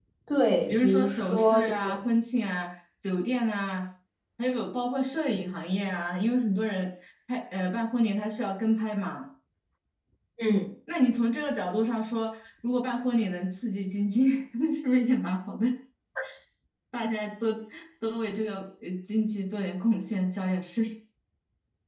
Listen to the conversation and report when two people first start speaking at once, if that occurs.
1 s

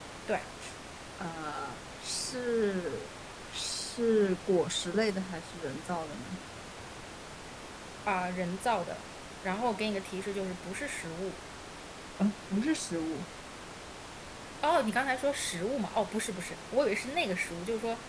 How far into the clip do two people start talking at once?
none

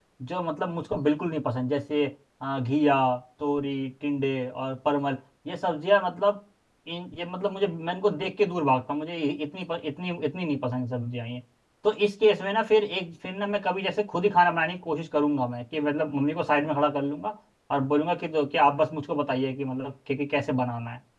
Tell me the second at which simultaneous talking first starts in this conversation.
none

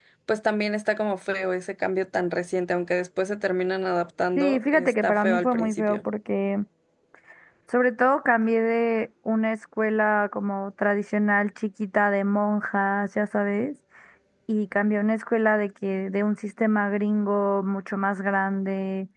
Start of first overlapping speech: 4 s

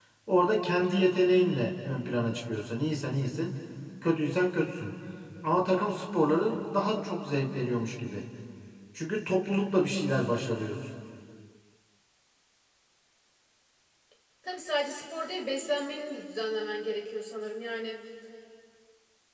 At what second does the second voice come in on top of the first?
none

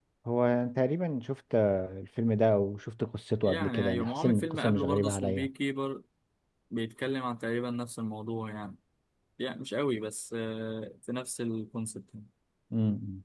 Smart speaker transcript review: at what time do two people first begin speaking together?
3 s

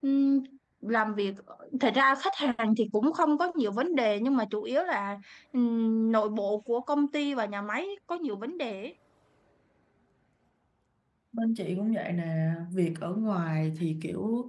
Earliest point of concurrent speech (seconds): none

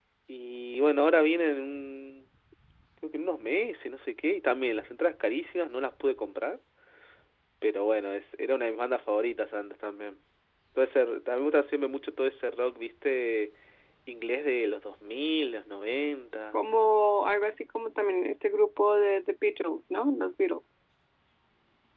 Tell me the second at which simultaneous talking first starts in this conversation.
none

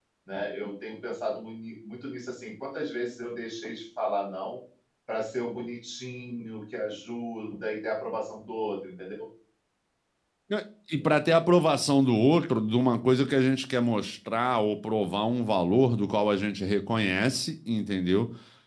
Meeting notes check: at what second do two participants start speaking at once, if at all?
none

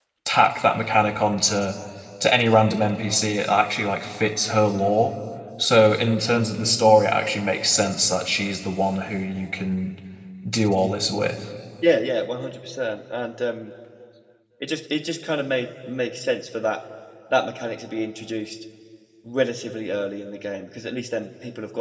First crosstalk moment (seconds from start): none

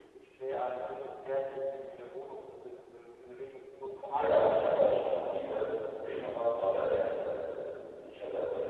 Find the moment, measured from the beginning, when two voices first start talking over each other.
4 s

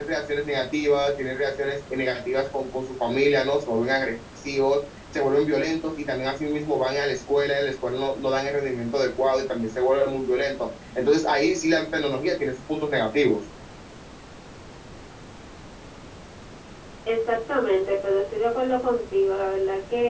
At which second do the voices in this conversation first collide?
none

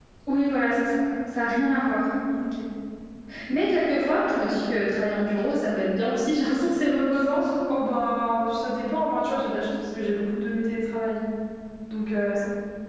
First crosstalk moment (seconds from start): none

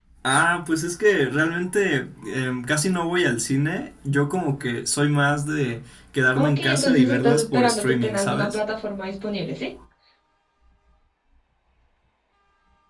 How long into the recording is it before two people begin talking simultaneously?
6 s

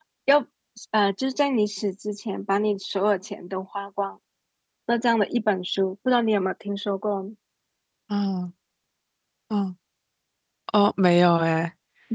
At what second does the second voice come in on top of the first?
none

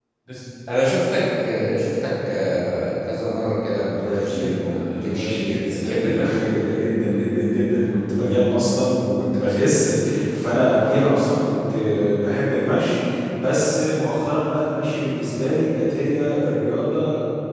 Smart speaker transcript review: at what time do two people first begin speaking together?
4 s

